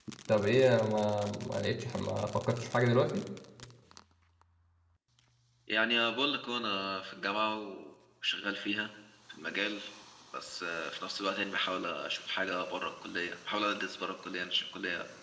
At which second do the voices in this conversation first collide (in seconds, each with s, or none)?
none